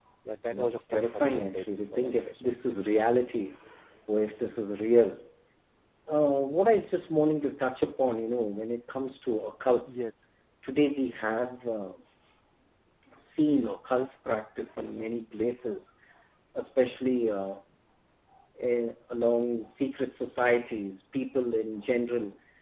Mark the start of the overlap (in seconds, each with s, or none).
0.5 s